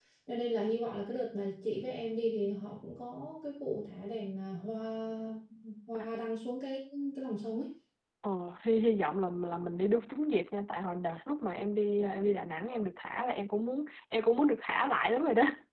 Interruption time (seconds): none

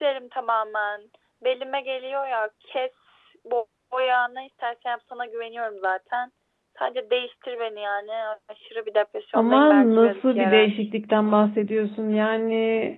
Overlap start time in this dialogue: 9.3 s

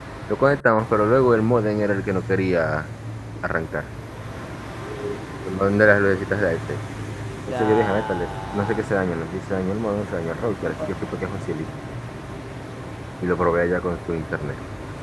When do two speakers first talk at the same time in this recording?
7.5 s

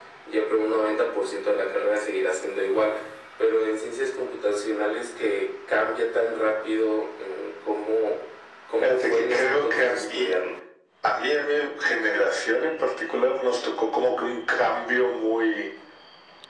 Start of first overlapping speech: 8.8 s

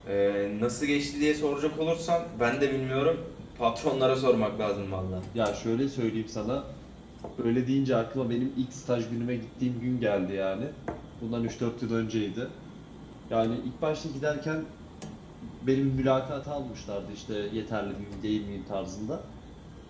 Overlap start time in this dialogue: none

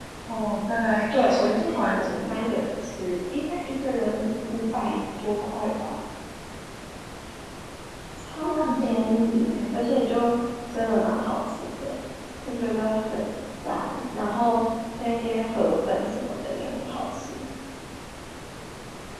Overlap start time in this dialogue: 1.1 s

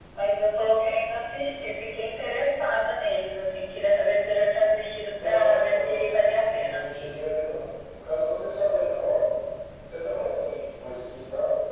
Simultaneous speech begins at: 5.1 s

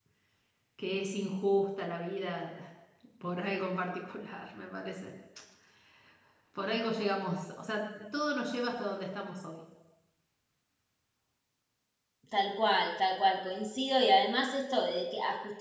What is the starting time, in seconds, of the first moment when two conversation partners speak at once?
none

